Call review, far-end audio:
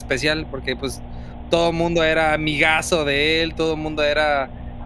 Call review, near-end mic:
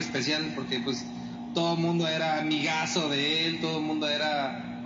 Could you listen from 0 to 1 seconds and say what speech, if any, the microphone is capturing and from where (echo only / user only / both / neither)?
echo only